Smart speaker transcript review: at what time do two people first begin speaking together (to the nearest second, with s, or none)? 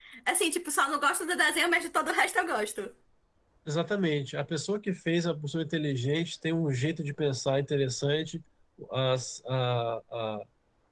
none